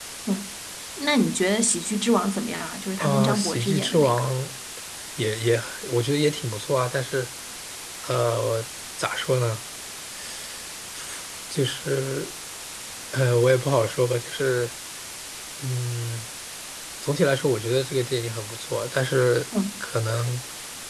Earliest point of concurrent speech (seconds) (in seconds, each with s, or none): 3.0 s